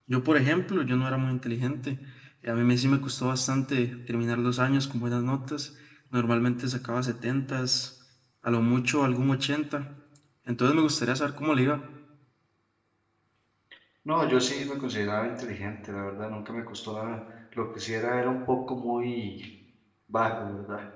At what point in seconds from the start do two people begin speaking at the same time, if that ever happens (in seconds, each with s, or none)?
none